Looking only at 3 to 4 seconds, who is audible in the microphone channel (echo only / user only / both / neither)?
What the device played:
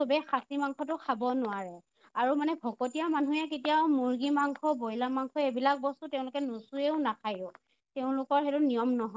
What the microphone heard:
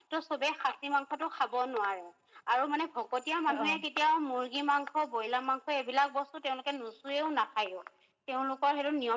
both